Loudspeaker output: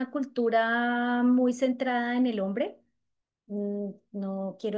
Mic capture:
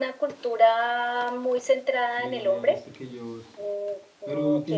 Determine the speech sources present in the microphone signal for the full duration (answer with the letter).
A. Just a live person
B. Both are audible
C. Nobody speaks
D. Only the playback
B